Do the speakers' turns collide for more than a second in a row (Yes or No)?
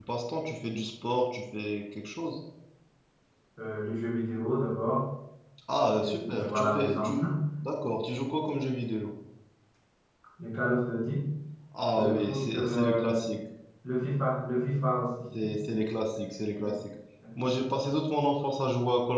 Yes